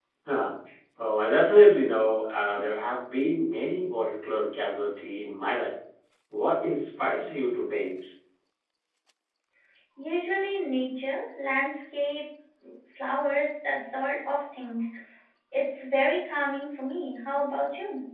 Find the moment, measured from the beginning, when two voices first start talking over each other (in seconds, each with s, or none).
none